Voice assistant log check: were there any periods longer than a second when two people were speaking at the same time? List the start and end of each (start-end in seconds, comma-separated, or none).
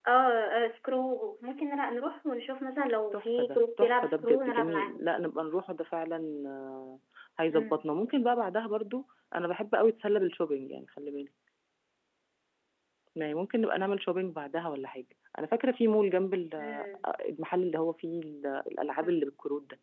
3.1-5.0